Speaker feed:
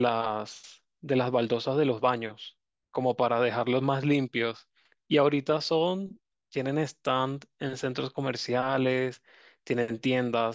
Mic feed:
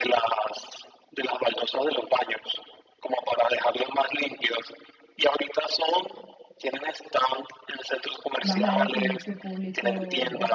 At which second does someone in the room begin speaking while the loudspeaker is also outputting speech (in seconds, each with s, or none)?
8.4 s